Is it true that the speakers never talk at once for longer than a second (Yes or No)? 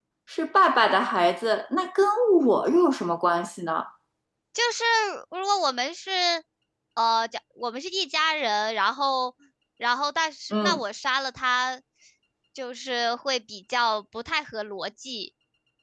Yes